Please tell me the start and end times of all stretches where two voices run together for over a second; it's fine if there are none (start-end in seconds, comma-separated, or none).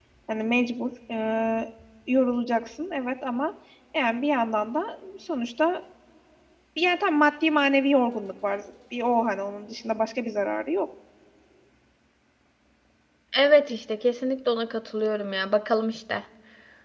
none